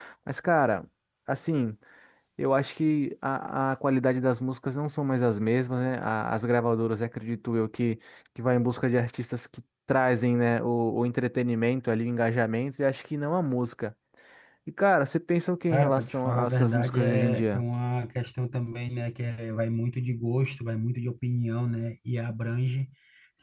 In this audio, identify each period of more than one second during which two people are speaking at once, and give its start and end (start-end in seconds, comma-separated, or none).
15.7-17.6